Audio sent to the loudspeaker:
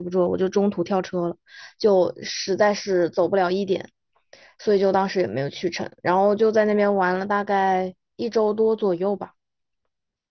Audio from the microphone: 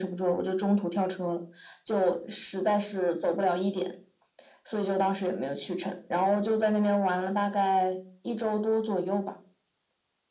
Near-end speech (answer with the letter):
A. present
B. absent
B